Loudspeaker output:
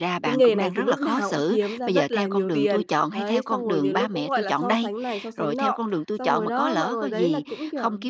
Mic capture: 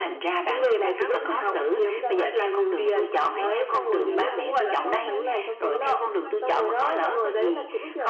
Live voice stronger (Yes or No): No